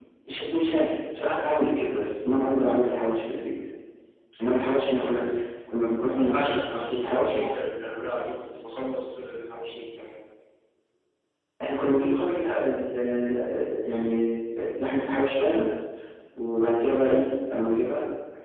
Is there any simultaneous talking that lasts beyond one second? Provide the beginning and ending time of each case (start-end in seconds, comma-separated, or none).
6.2-7.4